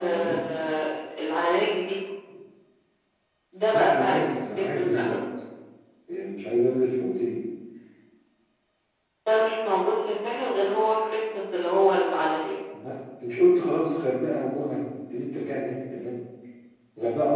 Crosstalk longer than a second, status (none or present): present